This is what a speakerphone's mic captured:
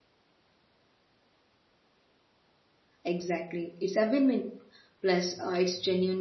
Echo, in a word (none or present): none